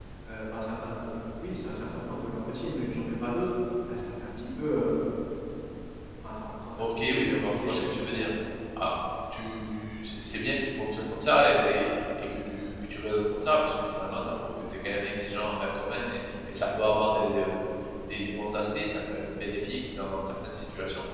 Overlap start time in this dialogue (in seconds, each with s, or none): 7.0 s